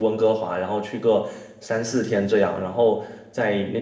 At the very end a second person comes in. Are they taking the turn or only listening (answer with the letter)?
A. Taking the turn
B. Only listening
B